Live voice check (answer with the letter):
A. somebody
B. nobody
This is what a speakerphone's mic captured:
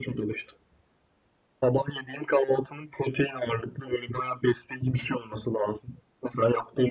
B